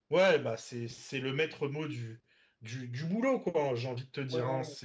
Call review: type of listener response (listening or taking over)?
taking over